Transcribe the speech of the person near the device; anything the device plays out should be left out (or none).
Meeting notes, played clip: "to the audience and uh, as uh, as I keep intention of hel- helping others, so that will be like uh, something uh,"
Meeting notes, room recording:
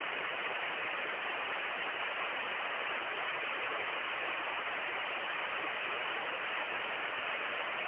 none